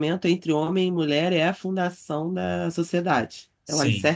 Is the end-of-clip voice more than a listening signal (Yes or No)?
No